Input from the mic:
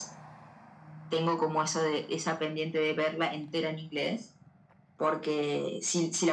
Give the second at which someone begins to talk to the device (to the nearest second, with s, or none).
none